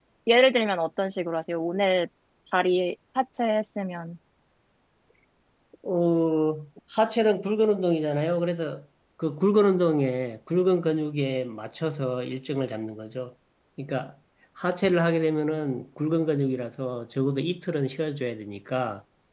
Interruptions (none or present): none